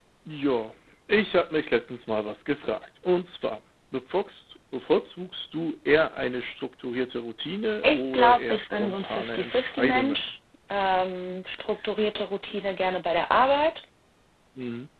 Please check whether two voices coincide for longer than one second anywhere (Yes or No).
Yes